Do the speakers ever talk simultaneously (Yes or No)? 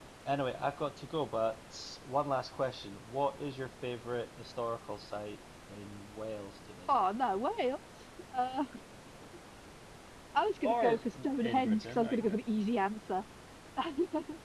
Yes